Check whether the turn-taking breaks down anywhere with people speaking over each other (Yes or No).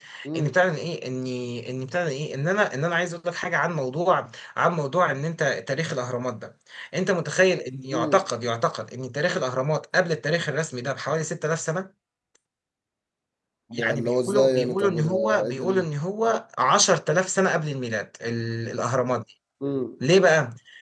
Yes